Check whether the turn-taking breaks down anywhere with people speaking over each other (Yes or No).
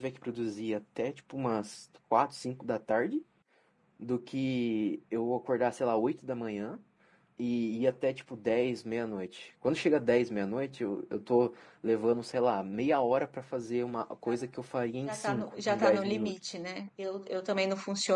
Yes